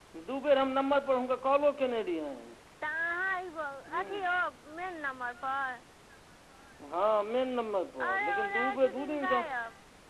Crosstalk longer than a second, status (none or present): present